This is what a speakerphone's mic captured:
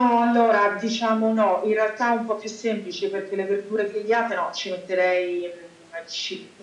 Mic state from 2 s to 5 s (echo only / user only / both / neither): echo only